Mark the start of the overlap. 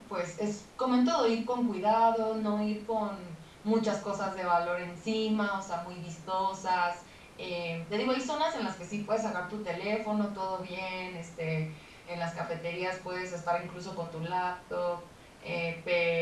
none

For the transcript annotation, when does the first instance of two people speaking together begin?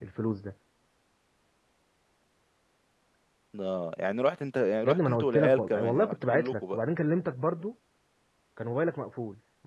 4.8 s

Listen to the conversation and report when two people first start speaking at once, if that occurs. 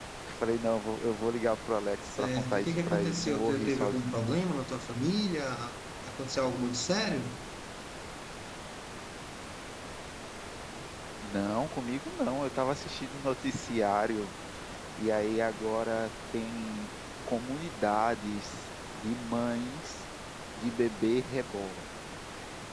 2.1 s

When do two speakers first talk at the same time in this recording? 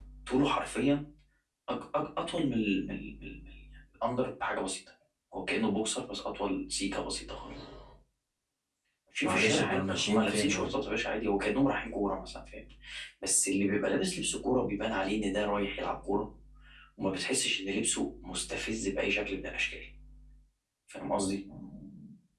9.2 s

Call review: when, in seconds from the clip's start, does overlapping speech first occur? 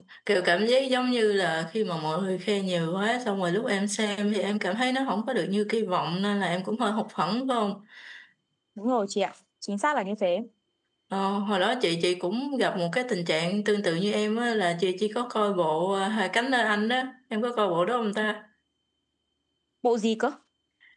none

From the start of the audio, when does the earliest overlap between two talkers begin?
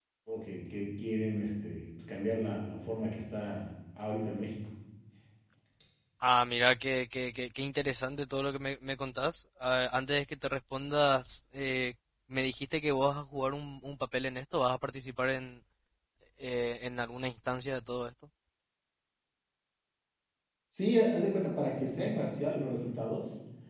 none

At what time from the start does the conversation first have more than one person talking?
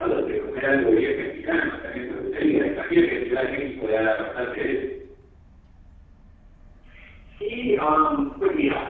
none

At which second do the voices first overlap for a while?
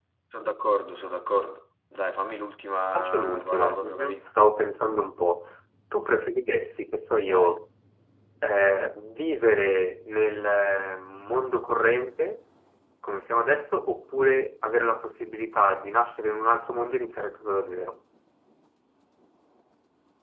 2.9 s

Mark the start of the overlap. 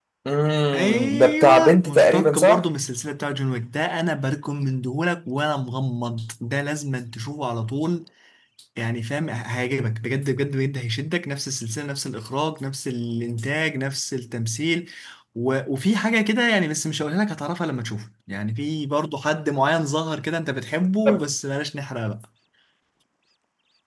0.7 s

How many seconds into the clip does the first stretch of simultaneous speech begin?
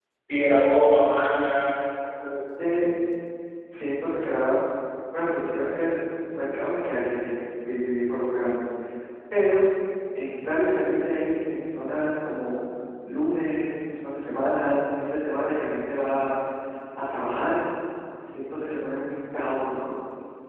none

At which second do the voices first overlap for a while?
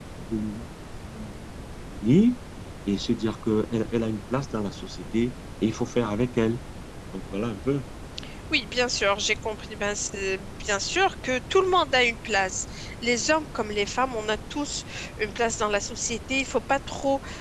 none

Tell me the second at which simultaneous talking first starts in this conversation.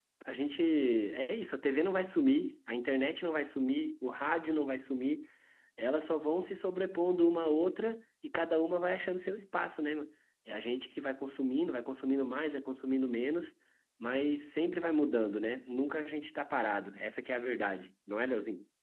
none

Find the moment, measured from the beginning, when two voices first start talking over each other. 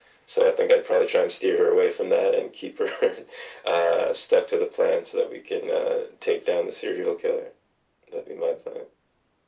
none

